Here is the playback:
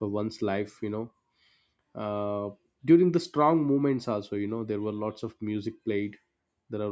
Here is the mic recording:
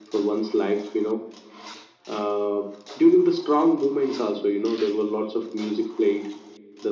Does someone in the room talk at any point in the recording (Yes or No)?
No